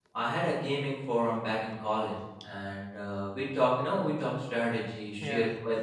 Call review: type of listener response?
listening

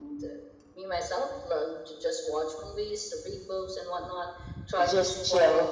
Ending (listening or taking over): listening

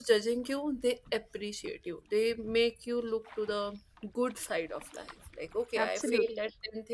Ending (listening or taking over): listening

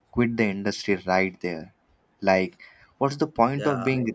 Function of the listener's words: listening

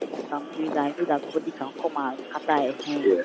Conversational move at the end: taking over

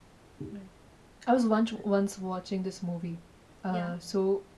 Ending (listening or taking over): listening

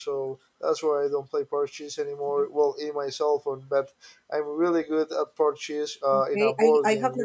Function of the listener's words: taking over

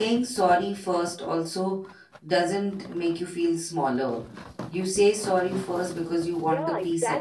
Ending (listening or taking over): taking over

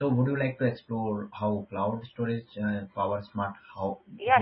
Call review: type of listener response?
taking over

